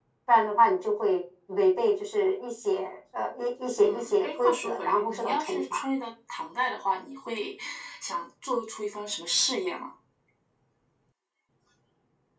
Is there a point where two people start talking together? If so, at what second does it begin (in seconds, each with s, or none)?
3.8 s